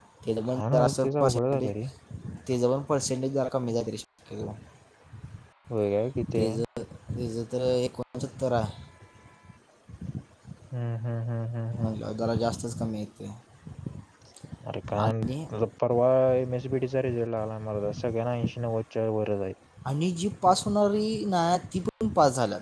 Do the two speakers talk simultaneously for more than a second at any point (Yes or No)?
Yes